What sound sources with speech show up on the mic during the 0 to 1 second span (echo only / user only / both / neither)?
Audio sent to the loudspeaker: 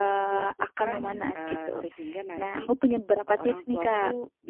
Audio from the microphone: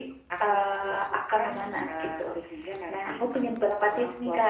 echo only